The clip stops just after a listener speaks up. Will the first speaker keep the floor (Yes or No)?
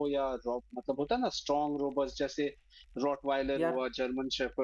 Yes